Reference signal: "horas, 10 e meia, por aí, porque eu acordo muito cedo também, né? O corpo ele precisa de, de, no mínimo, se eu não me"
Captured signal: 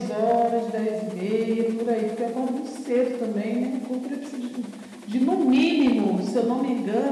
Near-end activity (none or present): none